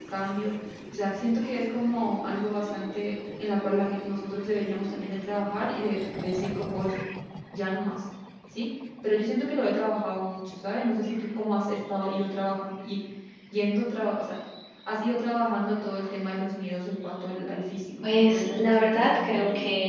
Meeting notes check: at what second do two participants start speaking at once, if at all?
18 s

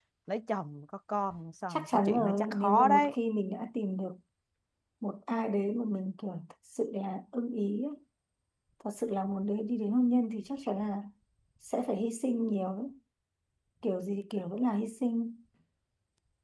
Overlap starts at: 2 s

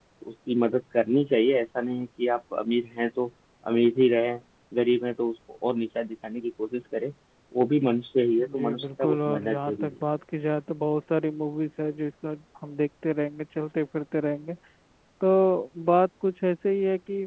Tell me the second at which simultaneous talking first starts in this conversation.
8 s

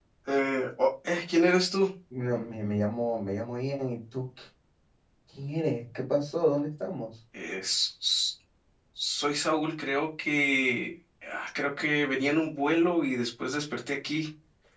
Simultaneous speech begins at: none

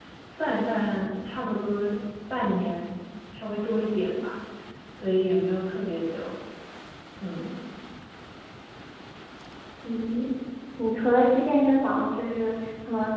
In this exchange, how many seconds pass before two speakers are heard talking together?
none

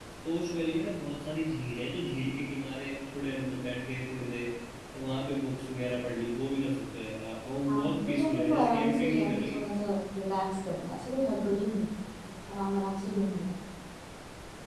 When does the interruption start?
8 s

